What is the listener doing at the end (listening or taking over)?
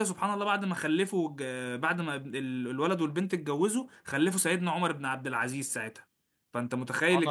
taking over